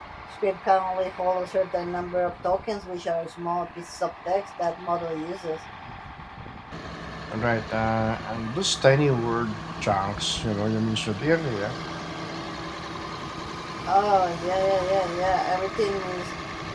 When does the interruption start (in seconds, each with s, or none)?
none